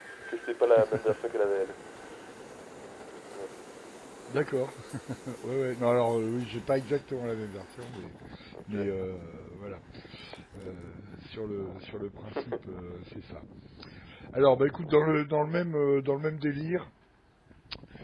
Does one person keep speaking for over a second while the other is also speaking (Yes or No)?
No